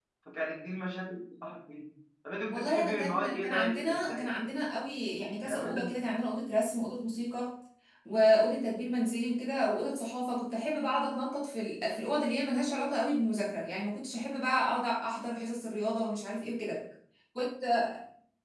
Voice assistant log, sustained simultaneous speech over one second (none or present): present